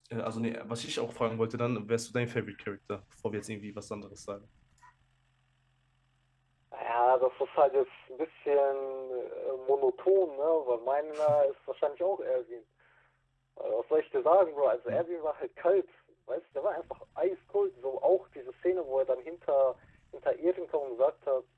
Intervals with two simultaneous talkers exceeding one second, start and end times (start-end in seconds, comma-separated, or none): none